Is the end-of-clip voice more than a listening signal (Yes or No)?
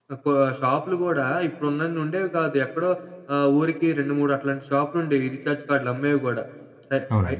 No